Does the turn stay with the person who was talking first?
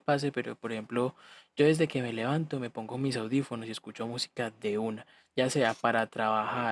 Yes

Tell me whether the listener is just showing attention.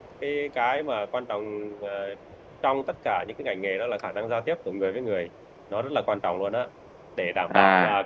Yes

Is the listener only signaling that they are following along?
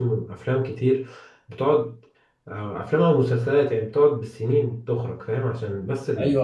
No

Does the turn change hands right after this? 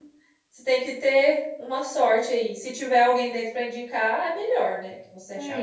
Yes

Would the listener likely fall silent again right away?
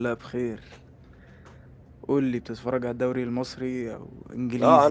No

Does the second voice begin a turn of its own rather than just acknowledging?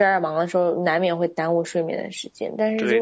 No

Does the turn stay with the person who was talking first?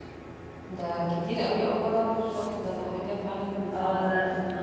No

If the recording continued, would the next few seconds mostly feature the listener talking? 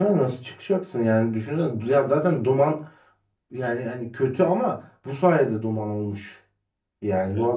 No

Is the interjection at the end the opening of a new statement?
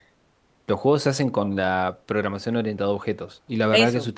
No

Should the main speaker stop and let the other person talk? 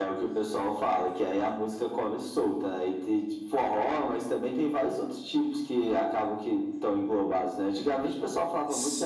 No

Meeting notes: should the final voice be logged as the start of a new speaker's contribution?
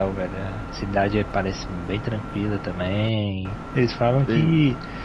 No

